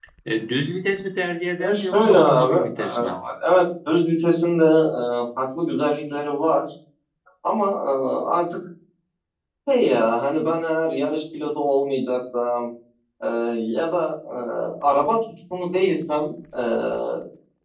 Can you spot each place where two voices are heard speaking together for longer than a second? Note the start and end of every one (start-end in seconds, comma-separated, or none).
1.6-3.0